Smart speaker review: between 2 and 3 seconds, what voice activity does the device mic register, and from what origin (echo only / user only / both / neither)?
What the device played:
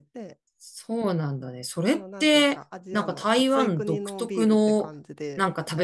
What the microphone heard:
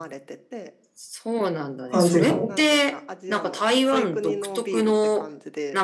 both